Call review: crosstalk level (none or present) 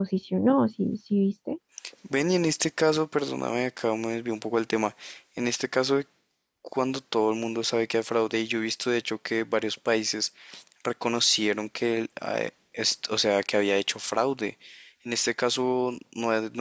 none